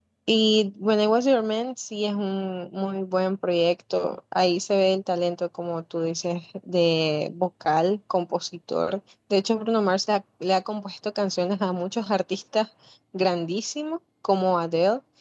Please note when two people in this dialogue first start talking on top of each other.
none

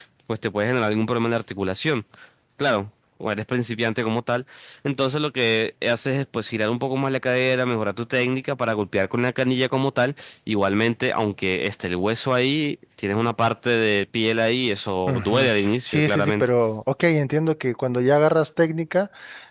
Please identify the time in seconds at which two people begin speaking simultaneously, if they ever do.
15.1 s

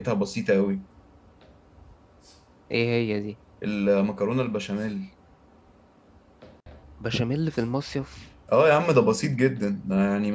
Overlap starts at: none

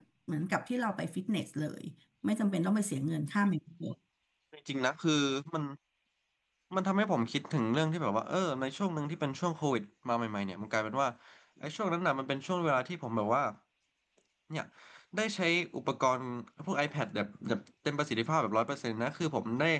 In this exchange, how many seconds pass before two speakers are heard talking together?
none

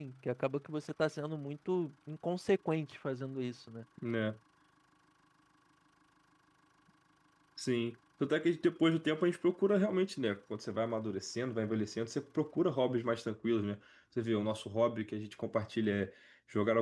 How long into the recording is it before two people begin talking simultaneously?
none

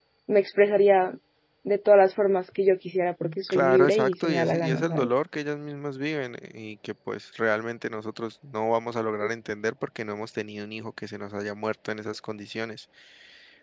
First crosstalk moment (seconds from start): 3.5 s

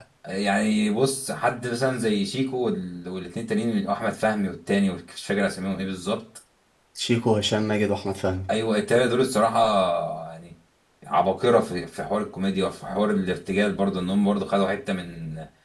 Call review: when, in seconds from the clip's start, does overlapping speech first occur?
none

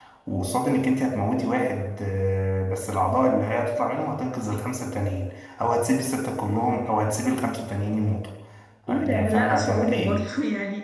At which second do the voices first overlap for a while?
8.9 s

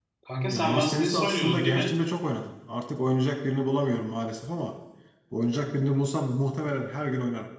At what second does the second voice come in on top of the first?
0.5 s

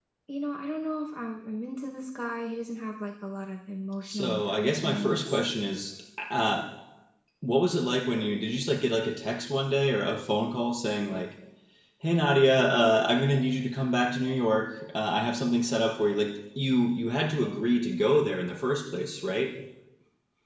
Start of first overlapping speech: 4.0 s

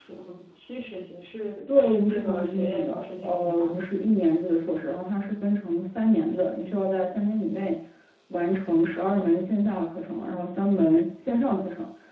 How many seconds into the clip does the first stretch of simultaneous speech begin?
1.7 s

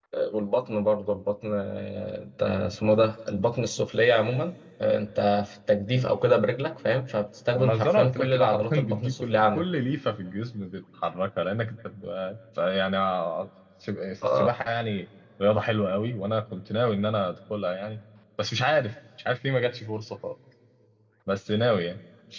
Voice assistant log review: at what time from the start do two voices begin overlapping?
7.6 s

